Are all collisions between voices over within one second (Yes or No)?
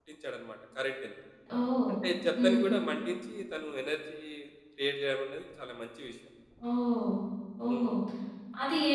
Yes